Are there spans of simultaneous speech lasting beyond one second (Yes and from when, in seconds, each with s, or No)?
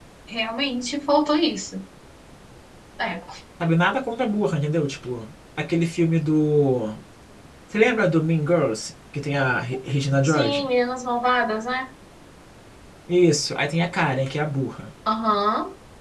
No